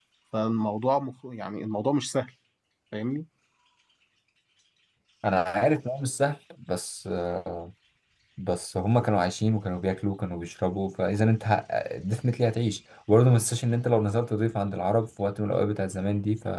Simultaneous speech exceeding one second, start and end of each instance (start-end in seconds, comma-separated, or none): none